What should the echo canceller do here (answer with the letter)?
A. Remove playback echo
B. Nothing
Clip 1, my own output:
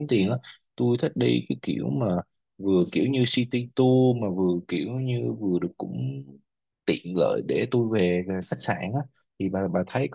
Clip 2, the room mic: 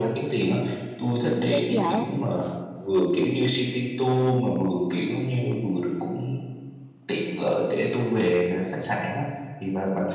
A